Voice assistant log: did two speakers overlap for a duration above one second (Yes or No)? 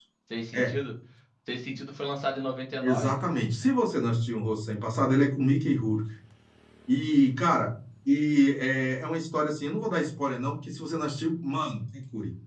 No